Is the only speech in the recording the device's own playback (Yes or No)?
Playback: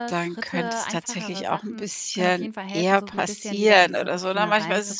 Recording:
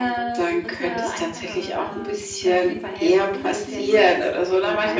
No